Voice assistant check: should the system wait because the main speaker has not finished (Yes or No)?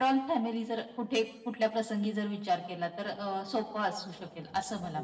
No